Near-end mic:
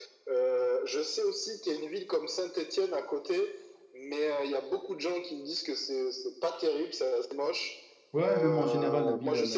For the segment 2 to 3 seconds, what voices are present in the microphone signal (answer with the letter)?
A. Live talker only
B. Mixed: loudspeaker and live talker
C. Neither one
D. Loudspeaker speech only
D